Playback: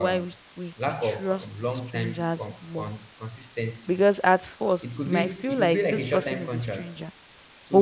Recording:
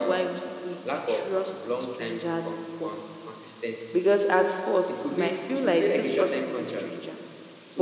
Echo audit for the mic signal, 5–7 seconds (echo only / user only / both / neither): echo only